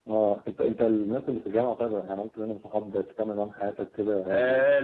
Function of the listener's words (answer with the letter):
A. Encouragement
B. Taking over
B